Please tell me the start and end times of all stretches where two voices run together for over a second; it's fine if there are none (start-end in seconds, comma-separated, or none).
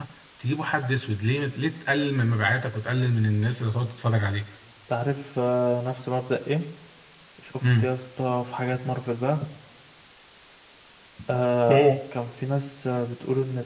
none